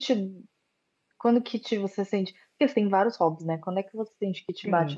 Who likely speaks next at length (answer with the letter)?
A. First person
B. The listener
A